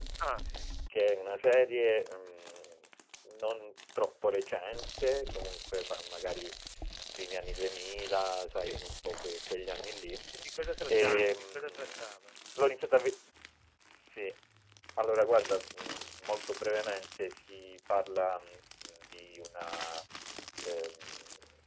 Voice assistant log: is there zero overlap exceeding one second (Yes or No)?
No